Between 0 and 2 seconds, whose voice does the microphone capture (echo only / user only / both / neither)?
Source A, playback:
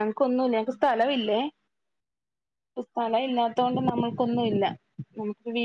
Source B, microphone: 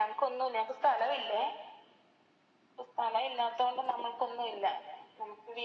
echo only